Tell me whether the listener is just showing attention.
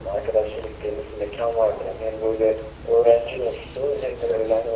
Yes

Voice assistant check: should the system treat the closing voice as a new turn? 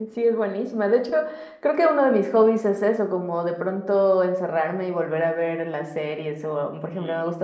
No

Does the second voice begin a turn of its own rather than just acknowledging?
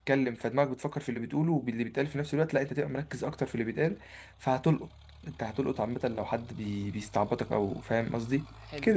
Yes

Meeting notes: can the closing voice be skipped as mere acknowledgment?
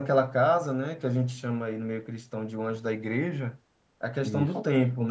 Yes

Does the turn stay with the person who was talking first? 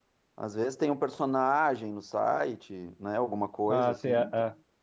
No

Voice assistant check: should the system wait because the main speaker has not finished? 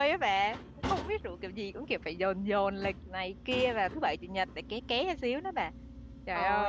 No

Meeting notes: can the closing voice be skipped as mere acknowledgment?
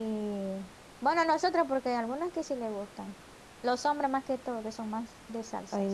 No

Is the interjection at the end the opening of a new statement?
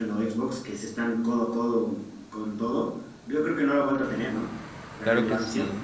Yes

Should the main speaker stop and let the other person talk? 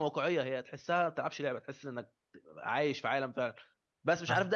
No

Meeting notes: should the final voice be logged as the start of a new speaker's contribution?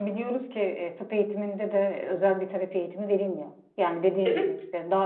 No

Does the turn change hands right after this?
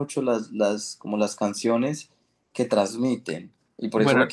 No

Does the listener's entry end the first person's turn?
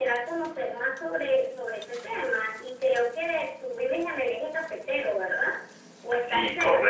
Yes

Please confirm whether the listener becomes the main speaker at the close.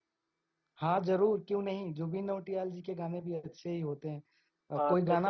Yes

